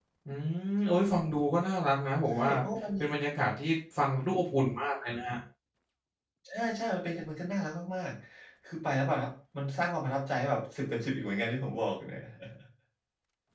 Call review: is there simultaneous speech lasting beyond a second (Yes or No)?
No